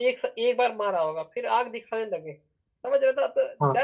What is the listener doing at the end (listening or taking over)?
listening